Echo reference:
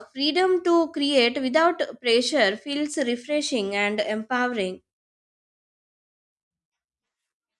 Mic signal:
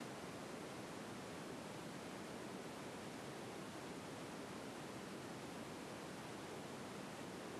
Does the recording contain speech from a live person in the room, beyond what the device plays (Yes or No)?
No